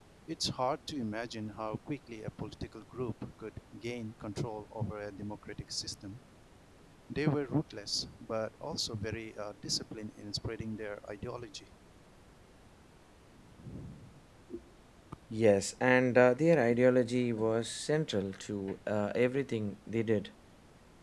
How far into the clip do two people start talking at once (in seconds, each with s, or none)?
none